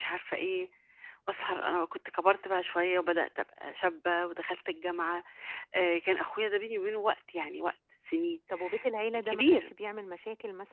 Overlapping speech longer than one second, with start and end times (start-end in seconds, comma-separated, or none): none